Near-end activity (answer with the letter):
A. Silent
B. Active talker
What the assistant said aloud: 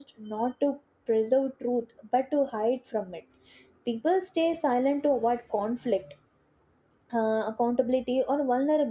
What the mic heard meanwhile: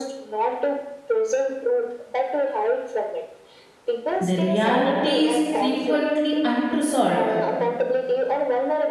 B